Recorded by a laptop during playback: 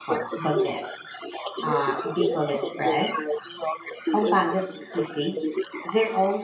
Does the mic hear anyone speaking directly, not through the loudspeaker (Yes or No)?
Yes